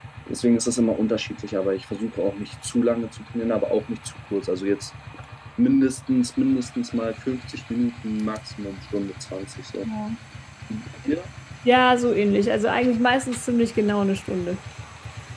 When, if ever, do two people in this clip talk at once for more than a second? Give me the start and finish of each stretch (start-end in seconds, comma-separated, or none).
none